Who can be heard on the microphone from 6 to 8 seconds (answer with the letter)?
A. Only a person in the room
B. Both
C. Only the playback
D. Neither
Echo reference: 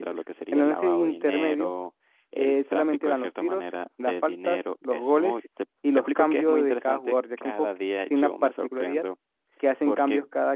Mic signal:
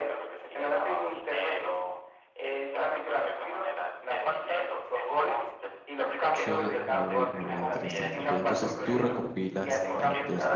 B